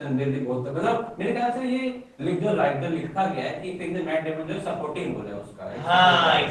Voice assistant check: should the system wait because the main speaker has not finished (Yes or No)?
No